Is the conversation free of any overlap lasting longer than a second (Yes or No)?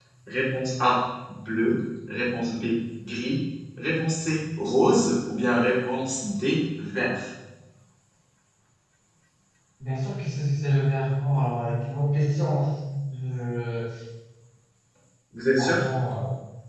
Yes